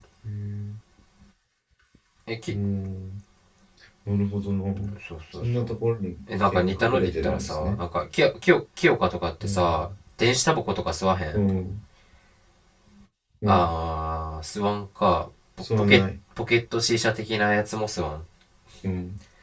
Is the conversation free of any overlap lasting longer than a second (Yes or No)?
No